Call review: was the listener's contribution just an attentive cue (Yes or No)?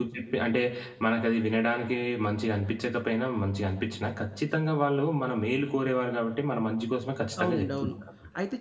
No